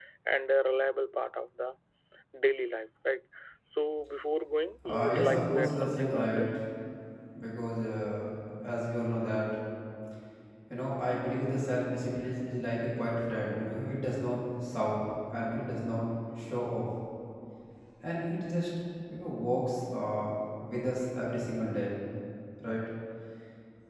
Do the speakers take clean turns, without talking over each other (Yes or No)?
No